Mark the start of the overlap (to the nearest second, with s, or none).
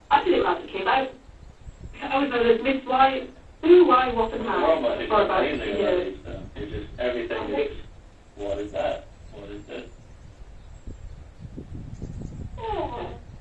4 s